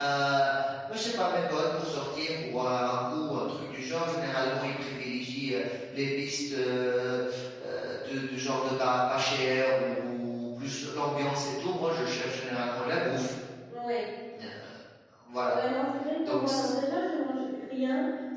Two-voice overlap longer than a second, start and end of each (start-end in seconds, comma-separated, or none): none